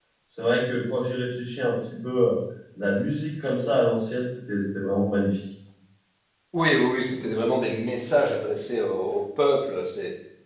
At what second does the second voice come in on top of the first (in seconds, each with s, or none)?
none